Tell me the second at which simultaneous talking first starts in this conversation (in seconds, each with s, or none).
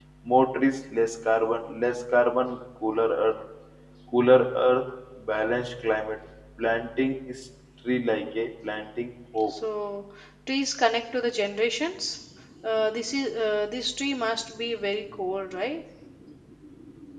none